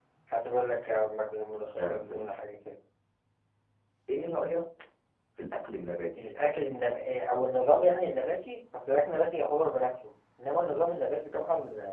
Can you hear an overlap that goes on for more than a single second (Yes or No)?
No